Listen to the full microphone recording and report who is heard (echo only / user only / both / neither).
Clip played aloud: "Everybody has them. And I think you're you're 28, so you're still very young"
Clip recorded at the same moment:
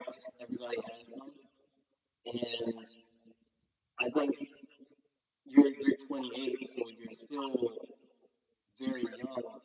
echo only